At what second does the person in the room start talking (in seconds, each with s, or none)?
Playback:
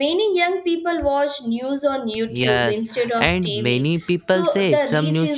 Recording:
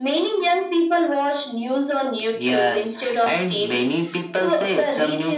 none